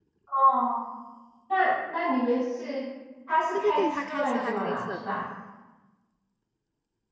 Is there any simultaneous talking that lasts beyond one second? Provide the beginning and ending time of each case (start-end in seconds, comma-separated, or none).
3.5-5.0